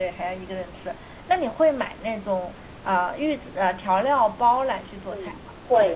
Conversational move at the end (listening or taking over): taking over